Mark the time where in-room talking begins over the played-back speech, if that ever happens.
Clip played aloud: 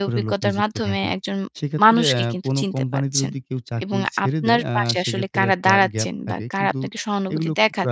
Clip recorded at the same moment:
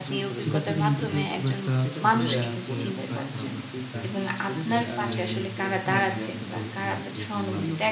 0.4 s

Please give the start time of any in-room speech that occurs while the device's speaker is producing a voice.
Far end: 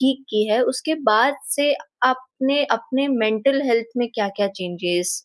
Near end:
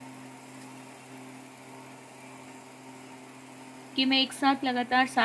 4.0 s

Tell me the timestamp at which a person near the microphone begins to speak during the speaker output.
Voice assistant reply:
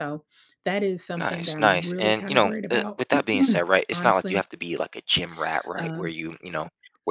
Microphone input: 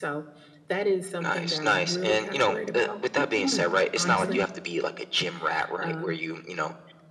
4.0 s

